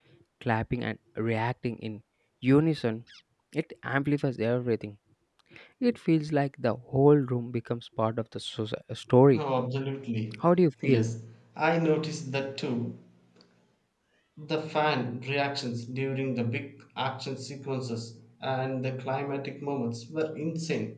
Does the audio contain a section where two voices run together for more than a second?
No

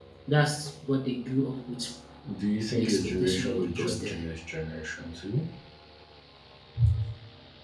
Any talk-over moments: Yes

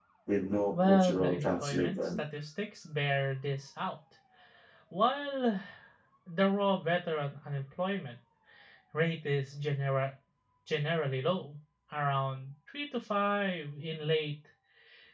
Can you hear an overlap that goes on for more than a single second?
Yes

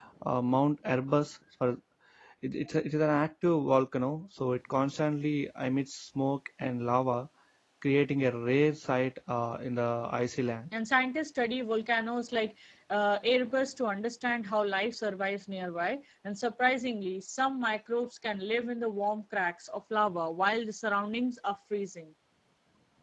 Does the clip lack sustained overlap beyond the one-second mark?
Yes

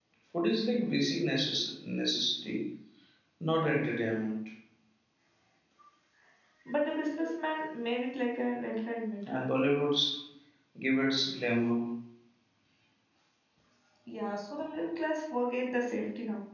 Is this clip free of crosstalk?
Yes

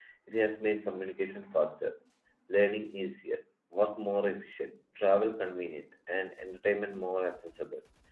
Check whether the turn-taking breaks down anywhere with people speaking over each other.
No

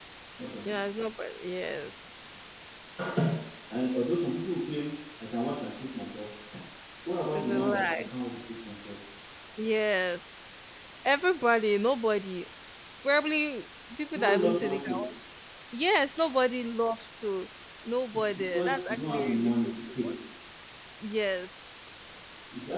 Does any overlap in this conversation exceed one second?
Yes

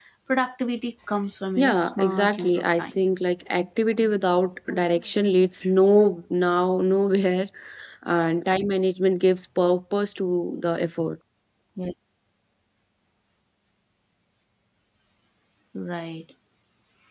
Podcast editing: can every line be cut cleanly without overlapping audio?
No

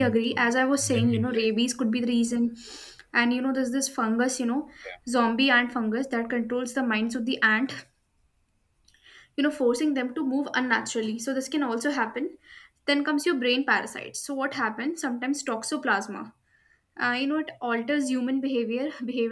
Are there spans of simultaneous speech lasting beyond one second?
Yes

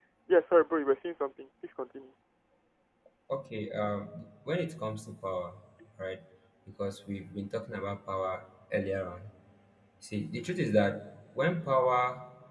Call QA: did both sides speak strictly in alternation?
Yes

